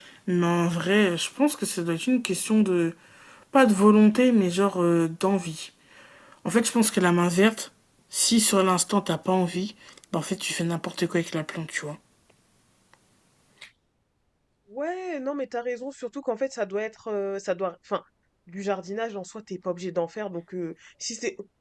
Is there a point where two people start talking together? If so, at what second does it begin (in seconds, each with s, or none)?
none